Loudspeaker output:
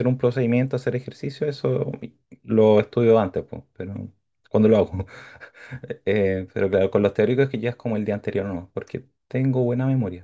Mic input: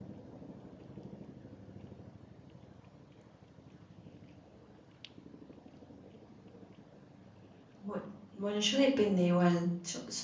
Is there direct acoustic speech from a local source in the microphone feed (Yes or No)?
Yes